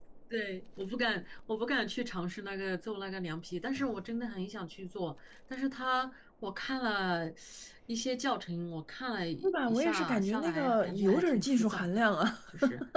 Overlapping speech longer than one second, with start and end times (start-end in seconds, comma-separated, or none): 9.4-11.9